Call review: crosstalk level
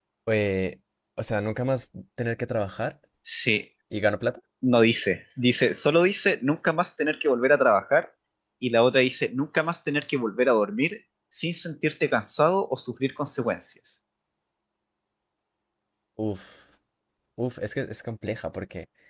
none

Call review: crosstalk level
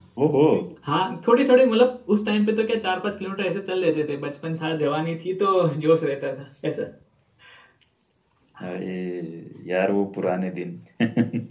none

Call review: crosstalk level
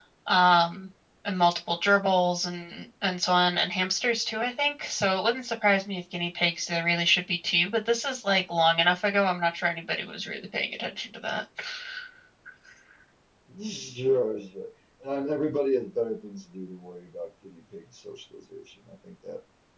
none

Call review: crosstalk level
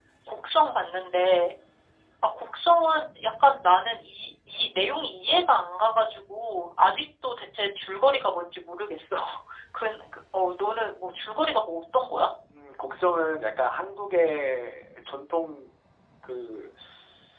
none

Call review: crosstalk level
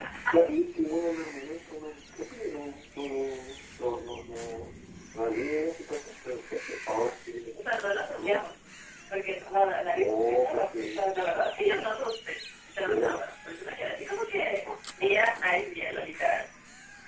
present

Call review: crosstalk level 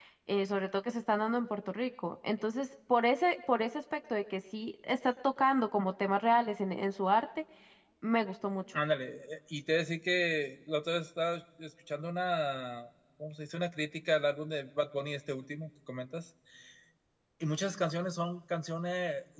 none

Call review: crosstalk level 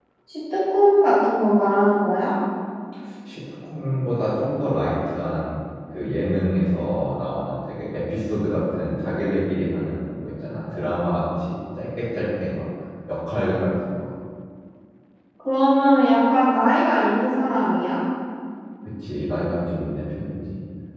none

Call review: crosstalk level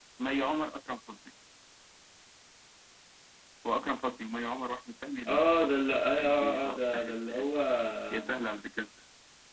present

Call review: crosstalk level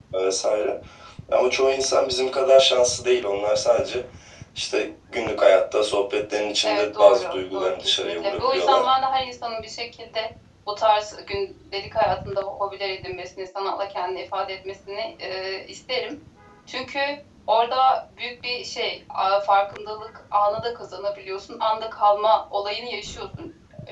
present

